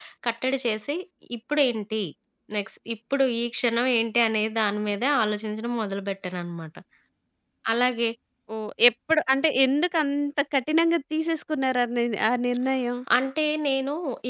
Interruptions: none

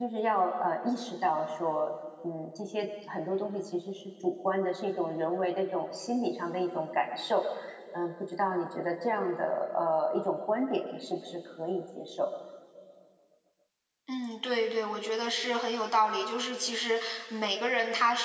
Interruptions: none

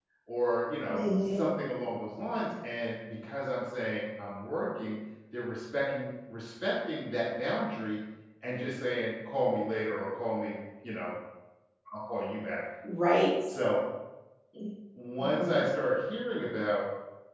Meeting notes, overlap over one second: none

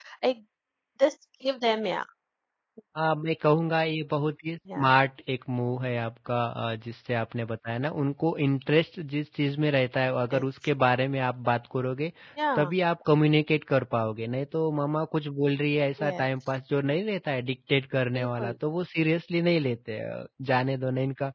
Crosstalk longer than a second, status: none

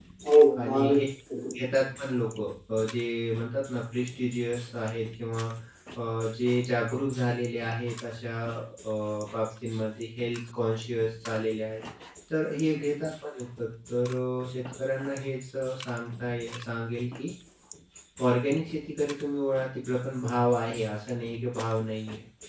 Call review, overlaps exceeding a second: none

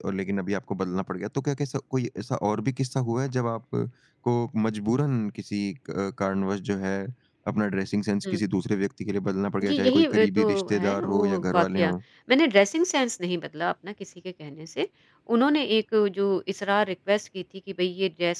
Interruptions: present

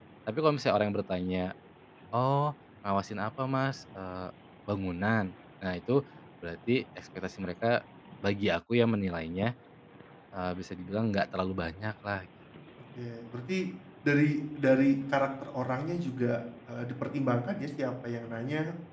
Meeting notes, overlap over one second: none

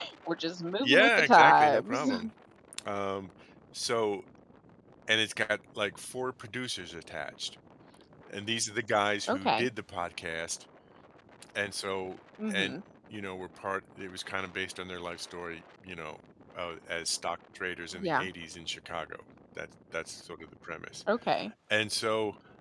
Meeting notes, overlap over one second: present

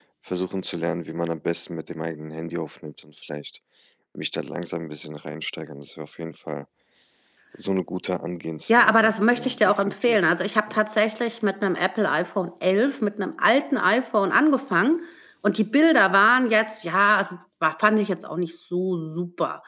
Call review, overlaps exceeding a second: present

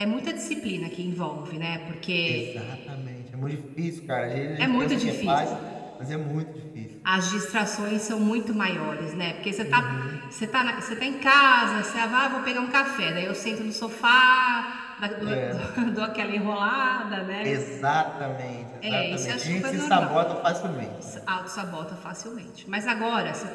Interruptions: present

